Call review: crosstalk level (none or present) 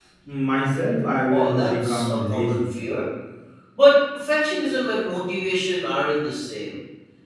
present